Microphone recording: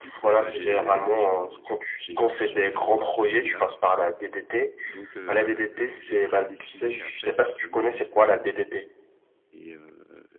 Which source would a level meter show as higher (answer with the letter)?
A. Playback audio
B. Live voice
A